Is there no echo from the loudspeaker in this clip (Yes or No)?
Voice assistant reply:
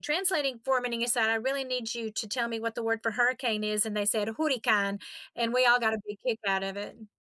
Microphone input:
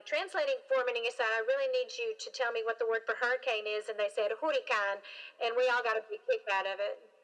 No